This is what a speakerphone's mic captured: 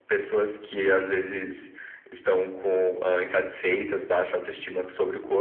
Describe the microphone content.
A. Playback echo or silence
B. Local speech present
A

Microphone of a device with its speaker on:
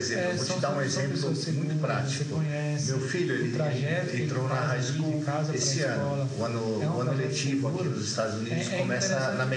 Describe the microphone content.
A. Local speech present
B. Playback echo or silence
B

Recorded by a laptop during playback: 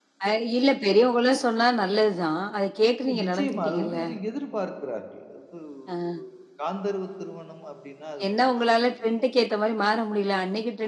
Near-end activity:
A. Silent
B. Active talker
B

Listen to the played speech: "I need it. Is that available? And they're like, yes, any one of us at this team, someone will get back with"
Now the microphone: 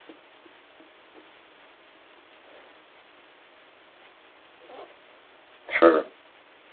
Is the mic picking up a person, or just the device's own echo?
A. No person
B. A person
B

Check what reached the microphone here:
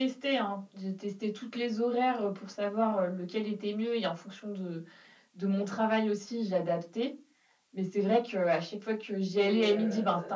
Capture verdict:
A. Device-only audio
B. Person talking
B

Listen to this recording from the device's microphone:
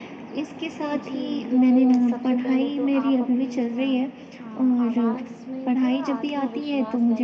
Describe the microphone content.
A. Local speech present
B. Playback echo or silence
A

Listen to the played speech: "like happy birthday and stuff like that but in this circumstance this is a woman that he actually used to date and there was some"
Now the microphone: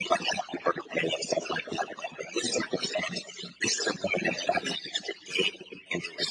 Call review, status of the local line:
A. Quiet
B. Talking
A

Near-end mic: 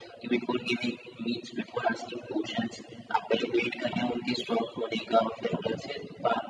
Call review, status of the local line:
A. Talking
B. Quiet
B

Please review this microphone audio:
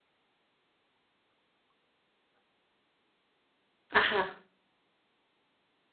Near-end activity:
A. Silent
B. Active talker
B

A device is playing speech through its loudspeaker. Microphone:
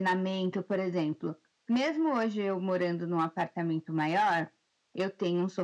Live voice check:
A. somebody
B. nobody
B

